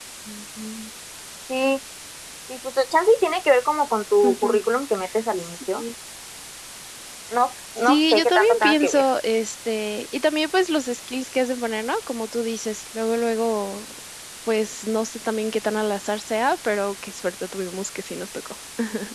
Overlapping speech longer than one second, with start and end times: 7.8-9.1

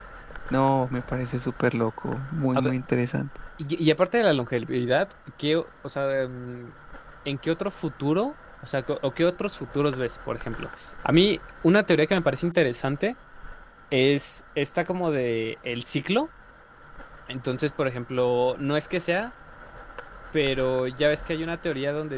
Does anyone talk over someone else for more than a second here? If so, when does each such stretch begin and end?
none

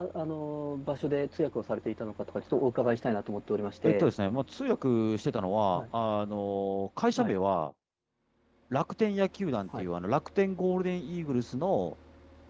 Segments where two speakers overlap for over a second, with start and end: none

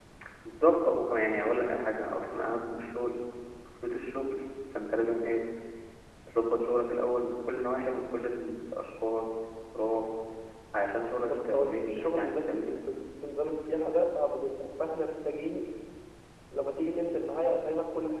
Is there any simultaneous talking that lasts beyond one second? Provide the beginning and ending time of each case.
11.2-12.7

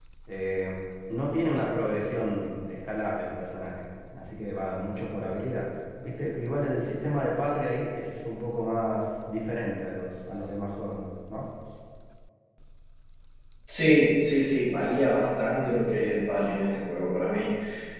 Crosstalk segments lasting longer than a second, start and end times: none

